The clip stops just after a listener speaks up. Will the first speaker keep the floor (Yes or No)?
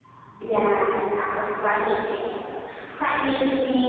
Yes